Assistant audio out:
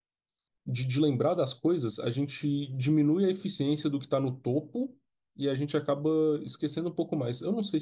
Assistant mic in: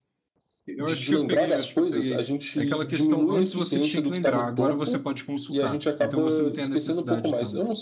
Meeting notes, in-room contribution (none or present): present